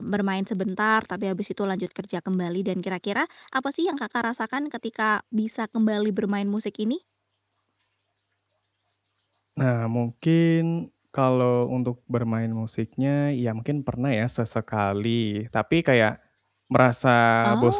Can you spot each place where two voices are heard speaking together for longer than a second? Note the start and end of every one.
none

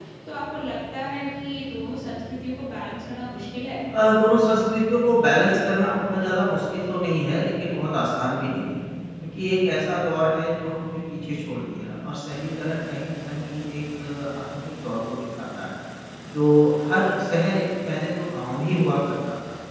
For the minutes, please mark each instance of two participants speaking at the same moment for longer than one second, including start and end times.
none

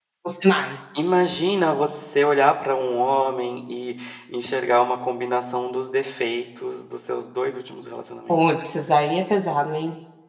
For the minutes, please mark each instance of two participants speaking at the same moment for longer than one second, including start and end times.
none

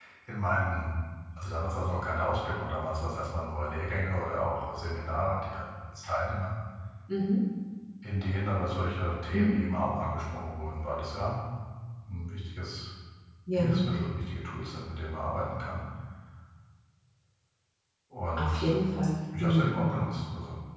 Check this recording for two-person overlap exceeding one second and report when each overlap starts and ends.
none

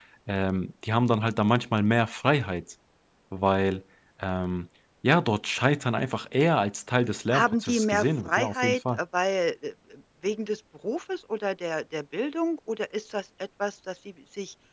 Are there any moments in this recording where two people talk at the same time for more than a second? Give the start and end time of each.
7.3-9.0

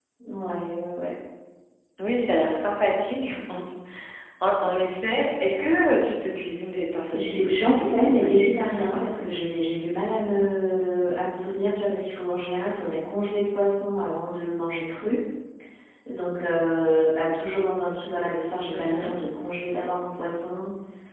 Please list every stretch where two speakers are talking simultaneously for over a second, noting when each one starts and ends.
7.1-9.4

